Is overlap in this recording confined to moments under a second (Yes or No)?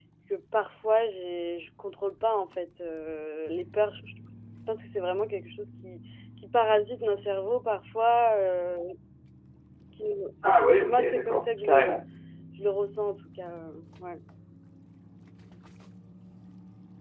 No